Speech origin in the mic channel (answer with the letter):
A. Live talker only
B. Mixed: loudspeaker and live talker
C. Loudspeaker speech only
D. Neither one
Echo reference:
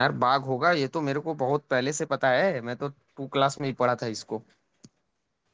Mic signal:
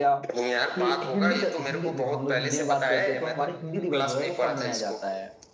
B